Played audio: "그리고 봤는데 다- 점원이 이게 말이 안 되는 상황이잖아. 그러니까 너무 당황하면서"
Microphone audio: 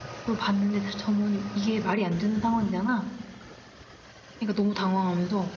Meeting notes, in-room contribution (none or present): none